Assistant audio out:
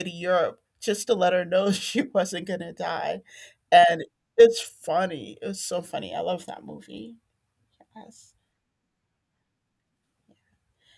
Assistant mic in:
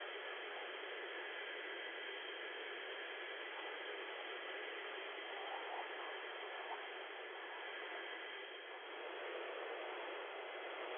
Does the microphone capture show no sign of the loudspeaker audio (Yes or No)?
Yes